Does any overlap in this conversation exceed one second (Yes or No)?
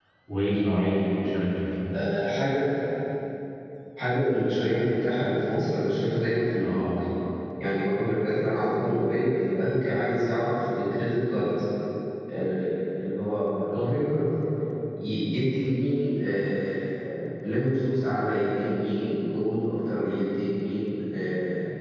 No